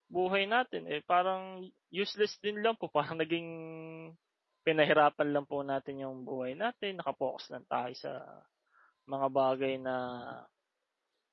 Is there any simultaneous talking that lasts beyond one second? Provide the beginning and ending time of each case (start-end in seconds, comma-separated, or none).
none